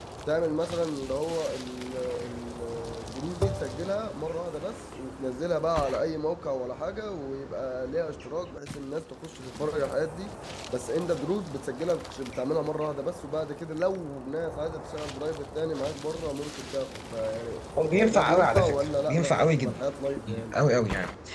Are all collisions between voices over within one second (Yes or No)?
No